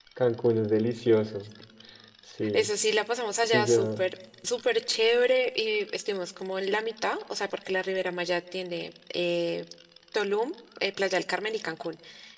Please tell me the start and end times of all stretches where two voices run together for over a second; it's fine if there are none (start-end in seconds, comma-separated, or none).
none